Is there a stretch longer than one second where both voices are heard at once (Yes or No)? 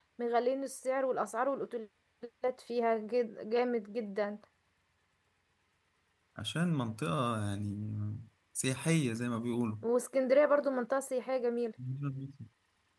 No